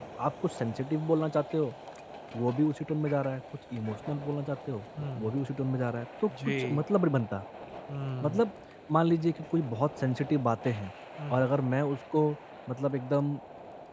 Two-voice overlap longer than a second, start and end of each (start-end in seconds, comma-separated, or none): none